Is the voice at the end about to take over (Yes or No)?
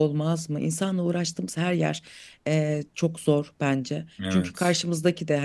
No